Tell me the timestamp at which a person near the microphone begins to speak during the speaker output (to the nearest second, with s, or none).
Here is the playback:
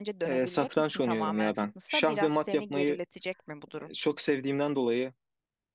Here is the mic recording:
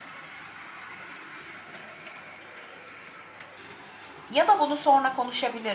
4 s